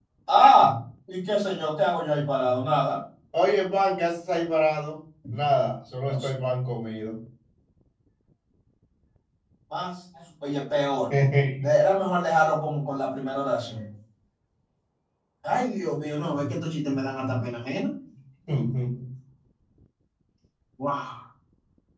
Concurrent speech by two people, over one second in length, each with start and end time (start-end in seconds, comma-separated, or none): none